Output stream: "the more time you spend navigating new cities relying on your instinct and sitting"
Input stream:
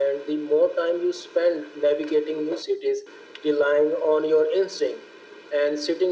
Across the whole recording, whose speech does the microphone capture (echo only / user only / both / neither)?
echo only